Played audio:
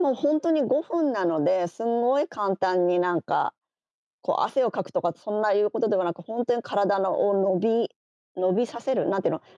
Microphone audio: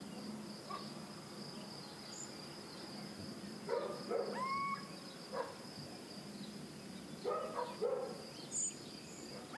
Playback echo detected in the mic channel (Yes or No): No